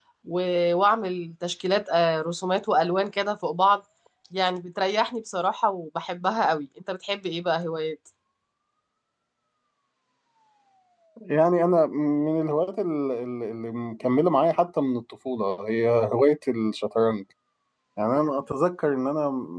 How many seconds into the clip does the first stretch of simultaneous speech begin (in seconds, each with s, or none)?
none